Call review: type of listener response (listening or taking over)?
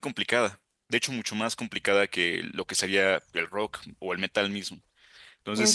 listening